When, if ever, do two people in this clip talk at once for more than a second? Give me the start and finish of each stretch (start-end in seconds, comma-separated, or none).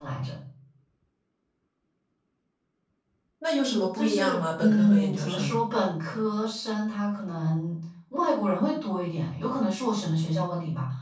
4.0-5.5